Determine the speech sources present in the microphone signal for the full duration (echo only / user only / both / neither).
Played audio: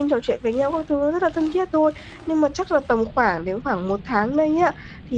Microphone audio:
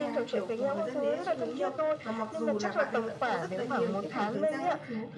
both